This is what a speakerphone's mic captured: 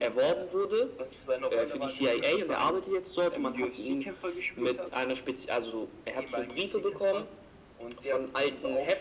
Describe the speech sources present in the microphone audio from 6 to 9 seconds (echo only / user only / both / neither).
echo only